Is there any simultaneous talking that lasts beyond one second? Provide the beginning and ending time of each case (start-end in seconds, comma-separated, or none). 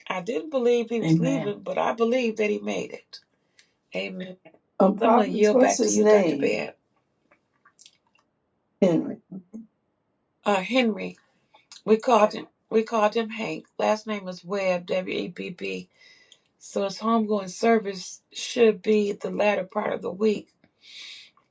5.0-6.5